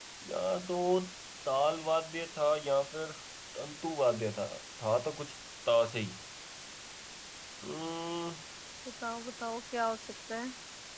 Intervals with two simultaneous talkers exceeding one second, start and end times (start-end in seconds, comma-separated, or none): none